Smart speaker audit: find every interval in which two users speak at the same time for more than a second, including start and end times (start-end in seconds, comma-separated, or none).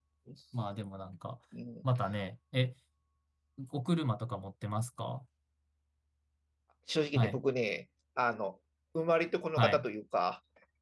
none